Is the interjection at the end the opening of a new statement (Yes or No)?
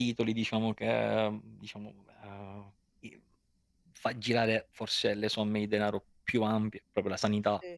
No